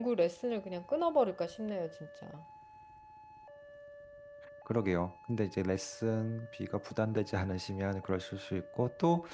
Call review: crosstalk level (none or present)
none